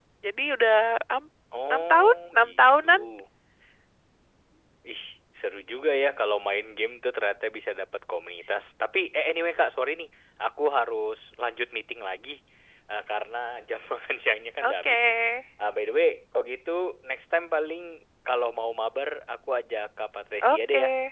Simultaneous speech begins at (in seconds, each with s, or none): 1.7 s